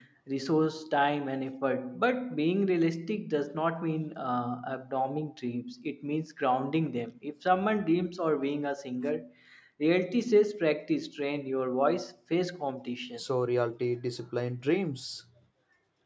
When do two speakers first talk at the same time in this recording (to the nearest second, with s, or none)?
none